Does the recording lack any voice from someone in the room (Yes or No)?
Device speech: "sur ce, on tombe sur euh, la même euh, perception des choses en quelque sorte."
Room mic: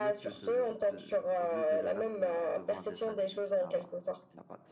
No